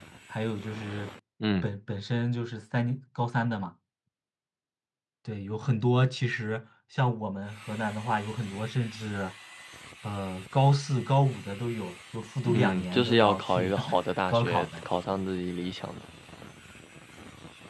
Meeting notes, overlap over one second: present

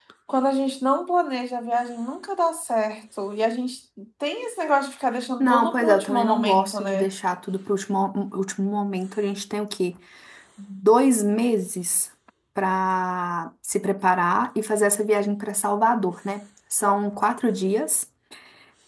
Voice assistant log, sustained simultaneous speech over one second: present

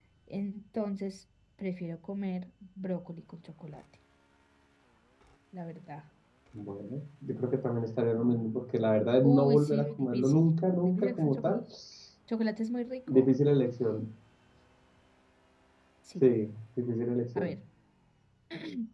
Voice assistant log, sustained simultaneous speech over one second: present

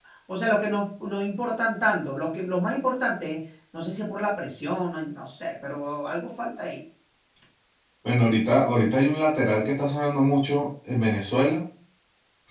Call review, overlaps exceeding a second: none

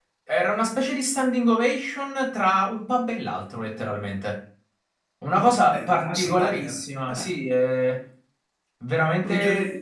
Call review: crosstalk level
present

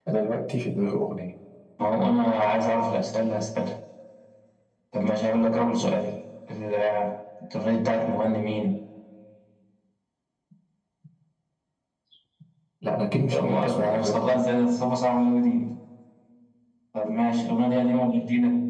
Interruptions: present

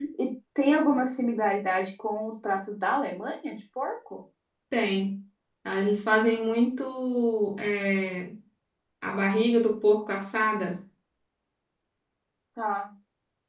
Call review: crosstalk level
none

